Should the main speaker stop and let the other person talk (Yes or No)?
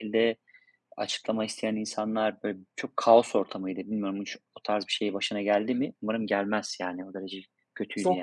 Yes